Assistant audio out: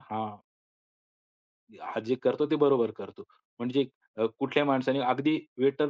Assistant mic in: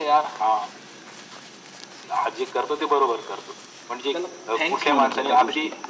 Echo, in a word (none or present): present